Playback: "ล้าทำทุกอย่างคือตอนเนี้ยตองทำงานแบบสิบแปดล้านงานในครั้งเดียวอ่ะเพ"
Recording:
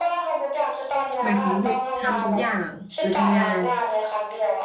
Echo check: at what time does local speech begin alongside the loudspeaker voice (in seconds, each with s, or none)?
1.2 s